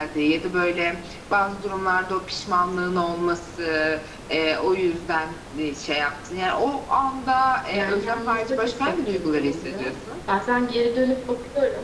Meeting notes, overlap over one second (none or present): present